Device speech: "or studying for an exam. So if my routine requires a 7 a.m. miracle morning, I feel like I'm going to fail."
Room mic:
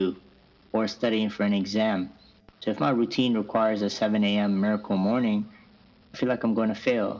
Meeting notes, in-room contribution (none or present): none